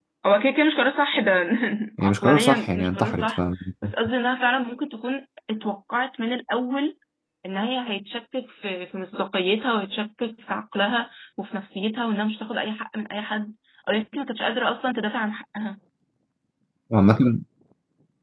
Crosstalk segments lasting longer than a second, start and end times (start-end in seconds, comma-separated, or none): 2.0-3.4